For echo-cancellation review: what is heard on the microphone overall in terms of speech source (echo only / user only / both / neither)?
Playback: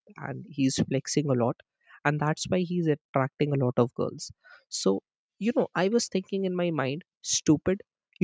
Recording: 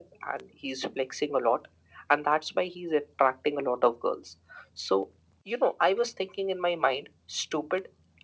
echo only